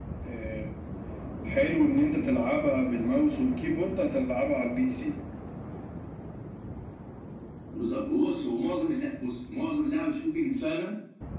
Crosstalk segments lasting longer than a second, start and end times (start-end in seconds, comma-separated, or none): none